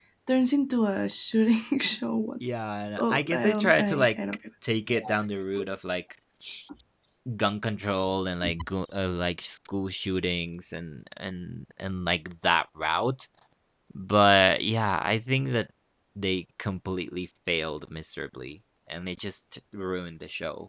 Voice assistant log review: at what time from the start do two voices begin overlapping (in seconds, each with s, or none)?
3.0 s